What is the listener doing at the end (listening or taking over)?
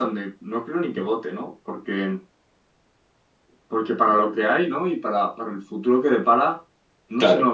listening